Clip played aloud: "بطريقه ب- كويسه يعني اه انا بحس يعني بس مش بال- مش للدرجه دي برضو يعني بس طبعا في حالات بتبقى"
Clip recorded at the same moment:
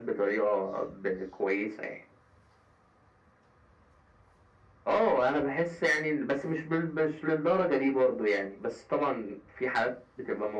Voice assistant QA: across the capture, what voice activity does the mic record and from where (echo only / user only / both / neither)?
echo only